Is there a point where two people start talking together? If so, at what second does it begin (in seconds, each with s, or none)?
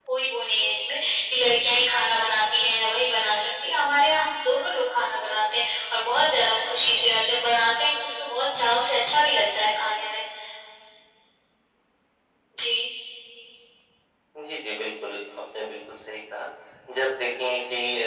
none